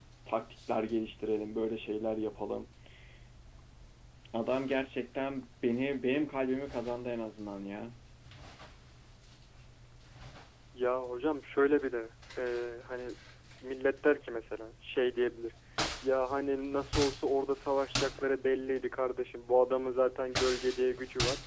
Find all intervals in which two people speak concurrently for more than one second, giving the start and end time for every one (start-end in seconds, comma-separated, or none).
none